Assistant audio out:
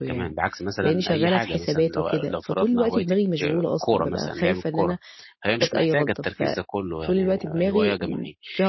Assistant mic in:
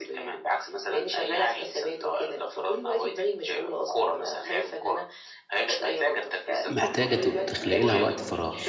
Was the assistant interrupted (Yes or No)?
Yes